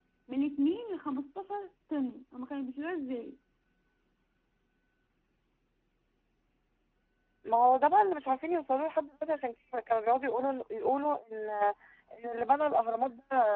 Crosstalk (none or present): none